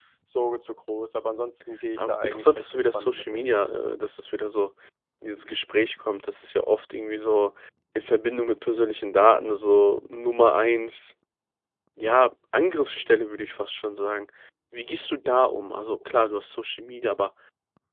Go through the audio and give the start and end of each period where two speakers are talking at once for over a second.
2.0-3.4

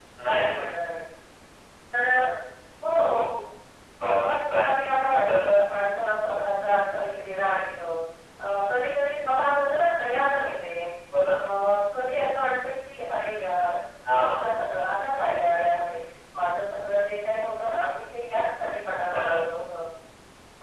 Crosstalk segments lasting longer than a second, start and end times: 4.0-5.5

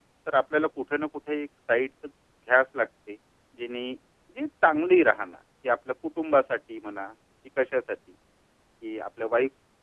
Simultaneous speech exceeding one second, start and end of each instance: none

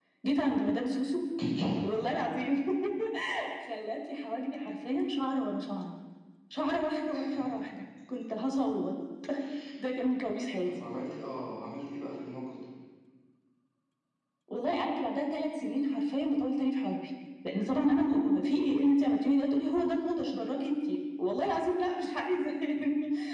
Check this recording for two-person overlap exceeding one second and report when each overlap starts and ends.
none

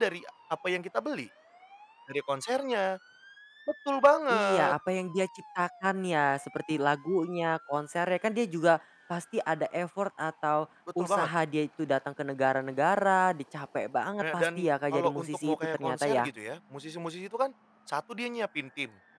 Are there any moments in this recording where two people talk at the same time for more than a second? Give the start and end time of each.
14.2-16.3

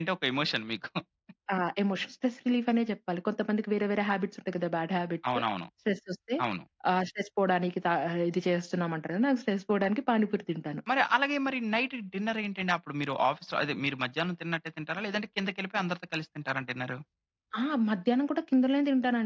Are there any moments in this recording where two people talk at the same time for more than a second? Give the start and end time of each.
none

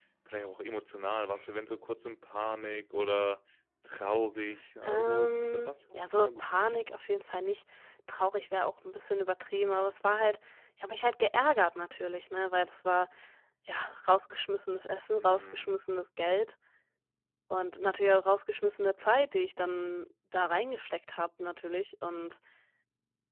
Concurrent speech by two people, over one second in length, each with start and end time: 4.8-6.9

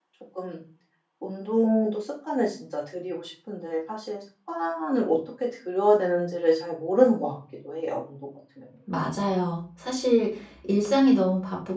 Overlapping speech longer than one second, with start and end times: none

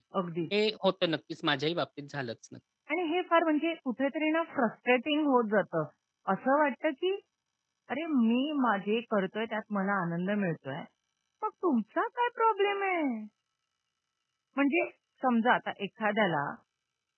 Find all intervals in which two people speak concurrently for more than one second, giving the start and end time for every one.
none

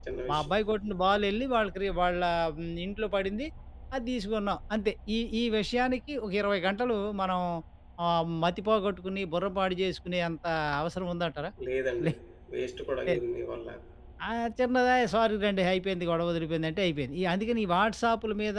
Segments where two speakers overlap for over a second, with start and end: none

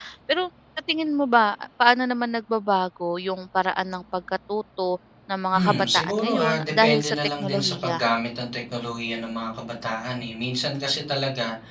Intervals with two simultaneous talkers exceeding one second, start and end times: 5.5-8.0

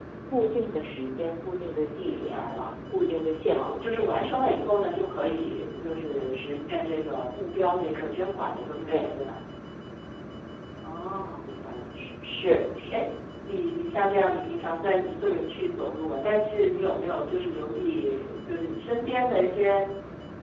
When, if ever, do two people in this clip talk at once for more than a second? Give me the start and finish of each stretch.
none

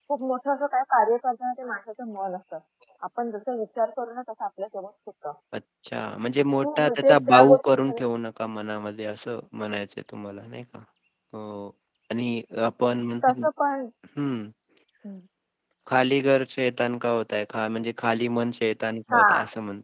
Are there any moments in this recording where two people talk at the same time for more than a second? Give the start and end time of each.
6.6-8.0

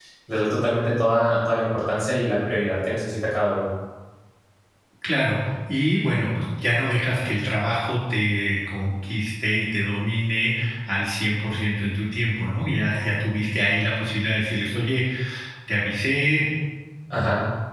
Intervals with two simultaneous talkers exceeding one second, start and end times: none

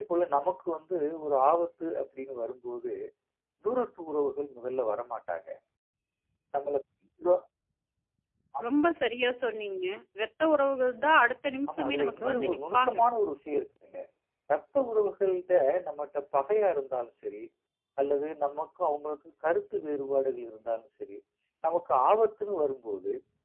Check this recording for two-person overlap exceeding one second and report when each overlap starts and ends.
11.7-13.0

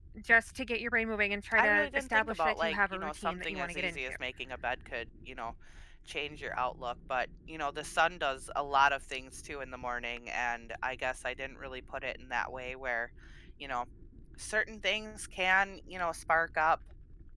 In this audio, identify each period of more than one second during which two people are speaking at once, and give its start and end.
1.6-4.1

